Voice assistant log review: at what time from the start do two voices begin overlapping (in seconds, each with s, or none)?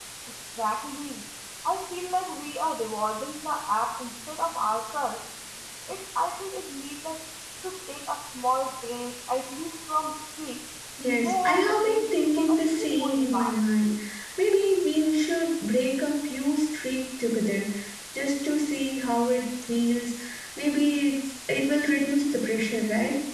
11.2 s